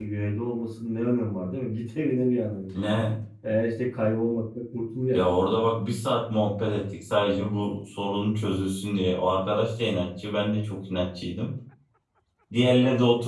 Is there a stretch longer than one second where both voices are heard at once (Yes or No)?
No